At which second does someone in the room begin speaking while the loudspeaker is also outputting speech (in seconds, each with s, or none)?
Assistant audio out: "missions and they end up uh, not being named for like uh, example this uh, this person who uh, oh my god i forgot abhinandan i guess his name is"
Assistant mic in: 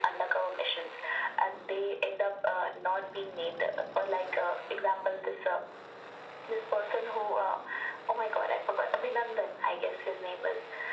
none